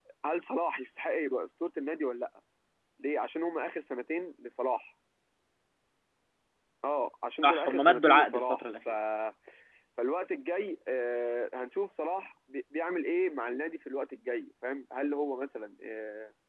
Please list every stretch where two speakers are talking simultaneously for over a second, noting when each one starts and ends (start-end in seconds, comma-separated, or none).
7.4-8.9